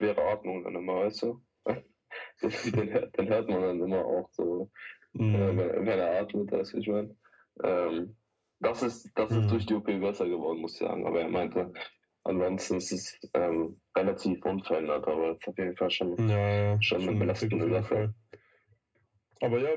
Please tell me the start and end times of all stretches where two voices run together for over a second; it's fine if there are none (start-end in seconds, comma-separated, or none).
16.8-18.0